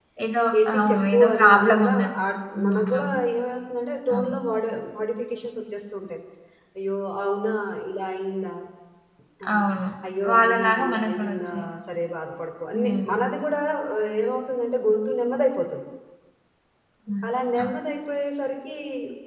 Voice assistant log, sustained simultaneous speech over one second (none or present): present